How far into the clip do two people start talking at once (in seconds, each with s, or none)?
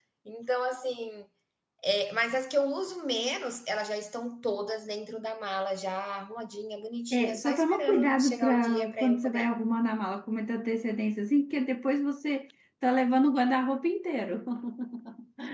7.1 s